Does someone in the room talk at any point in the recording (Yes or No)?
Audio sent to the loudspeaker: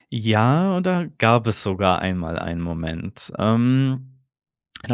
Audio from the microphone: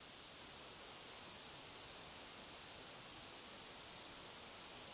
No